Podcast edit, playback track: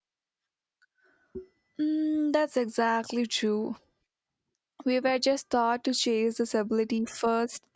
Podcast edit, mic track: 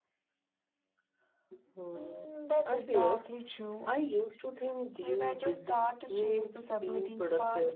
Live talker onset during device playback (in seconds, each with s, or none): 1.7 s